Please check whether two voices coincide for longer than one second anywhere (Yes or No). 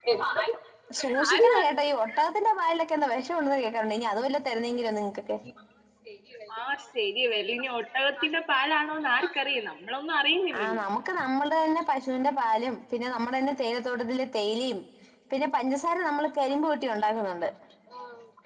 No